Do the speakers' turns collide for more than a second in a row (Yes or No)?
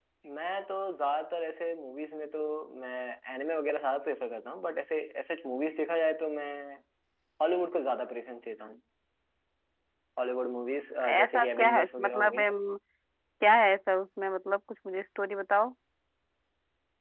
Yes